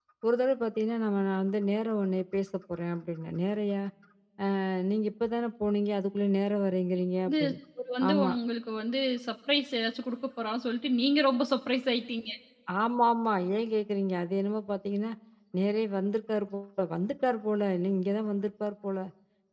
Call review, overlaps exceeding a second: none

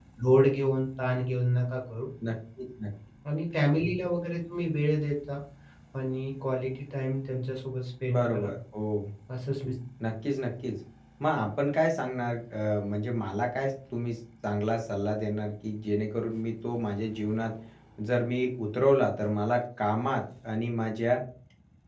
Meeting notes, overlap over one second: none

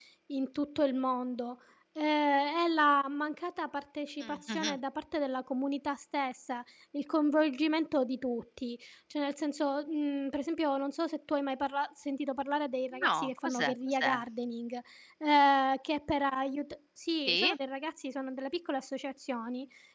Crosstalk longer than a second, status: present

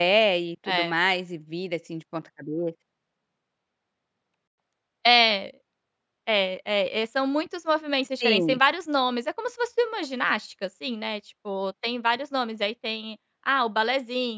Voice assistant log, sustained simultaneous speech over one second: none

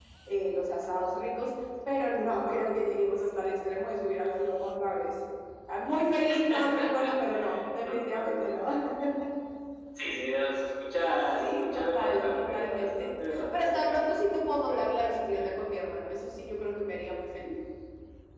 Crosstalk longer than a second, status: present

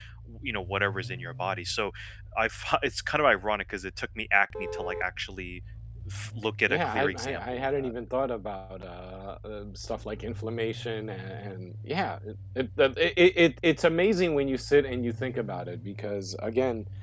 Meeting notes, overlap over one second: present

